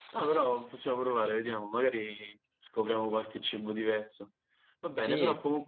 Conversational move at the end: listening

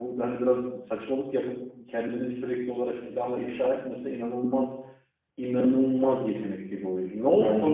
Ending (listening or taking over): taking over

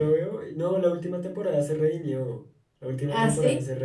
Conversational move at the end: listening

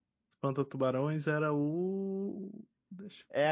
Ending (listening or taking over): taking over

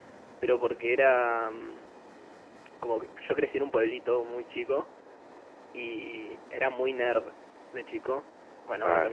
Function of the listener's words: taking over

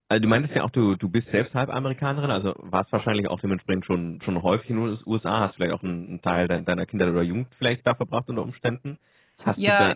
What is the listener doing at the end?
listening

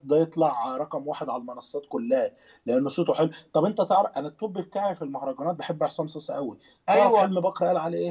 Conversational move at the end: listening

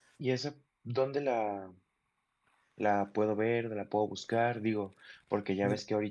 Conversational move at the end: listening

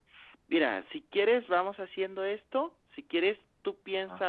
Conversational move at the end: listening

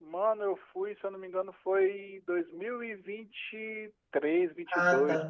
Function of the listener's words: taking over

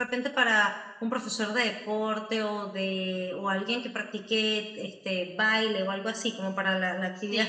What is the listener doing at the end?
taking over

